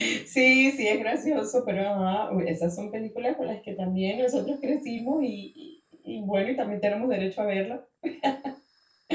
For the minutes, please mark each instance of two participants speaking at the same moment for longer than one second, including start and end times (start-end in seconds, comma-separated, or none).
none